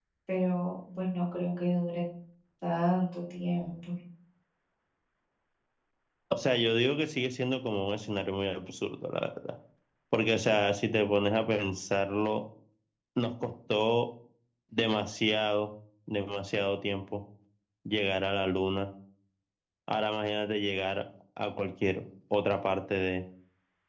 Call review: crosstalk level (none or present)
none